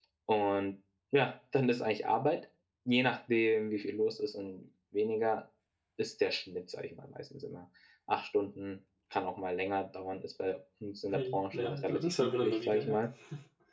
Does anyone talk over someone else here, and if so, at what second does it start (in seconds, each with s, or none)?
11.1 s